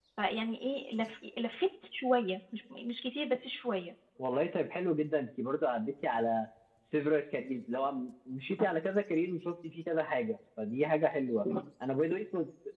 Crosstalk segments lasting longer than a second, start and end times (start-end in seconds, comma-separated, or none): none